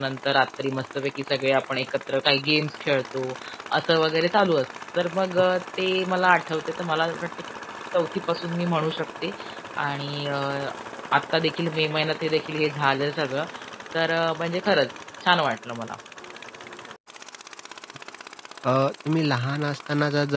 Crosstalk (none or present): none